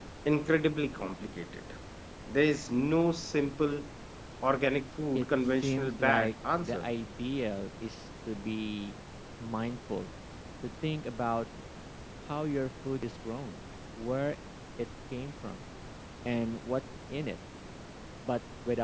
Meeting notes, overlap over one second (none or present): present